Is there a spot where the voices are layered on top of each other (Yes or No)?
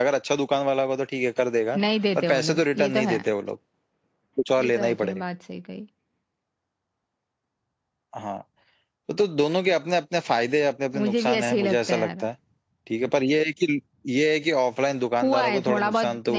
Yes